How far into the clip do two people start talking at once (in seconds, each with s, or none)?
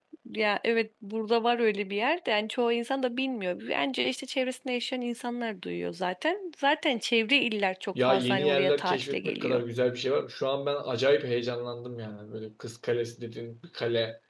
8.0 s